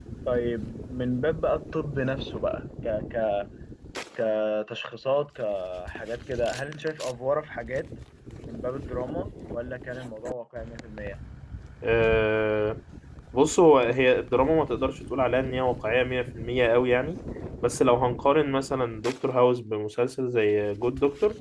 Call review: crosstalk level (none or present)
none